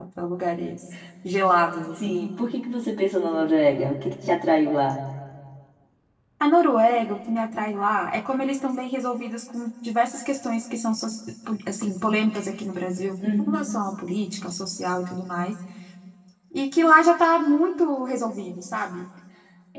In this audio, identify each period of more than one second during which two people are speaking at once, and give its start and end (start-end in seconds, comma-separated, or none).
none